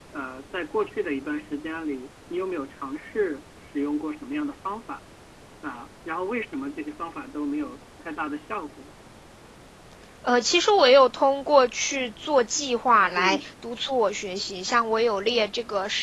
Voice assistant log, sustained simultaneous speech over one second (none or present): none